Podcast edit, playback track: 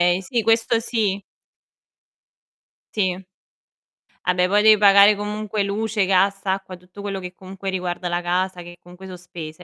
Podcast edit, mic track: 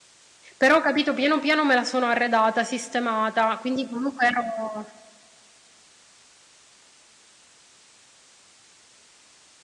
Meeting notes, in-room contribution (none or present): present